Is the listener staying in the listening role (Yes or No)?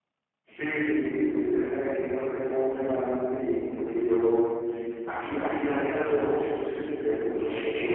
Yes